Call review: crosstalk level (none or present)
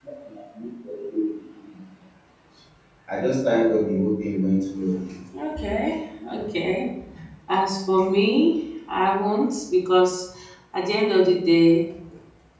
none